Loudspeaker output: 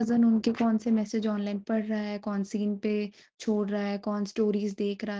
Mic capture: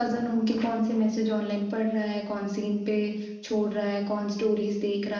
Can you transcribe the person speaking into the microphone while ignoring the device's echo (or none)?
none